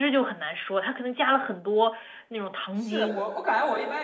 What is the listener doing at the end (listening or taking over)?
taking over